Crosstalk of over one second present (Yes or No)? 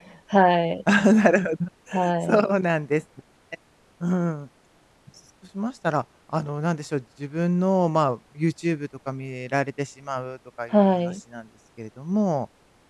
No